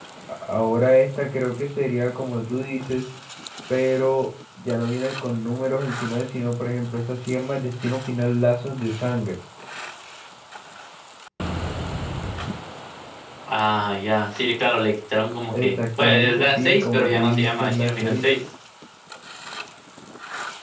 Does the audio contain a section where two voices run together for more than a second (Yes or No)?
Yes